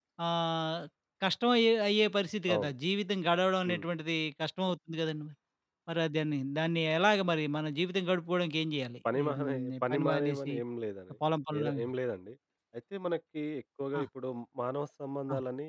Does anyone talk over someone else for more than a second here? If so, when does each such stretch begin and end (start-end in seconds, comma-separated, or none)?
9.1-10.5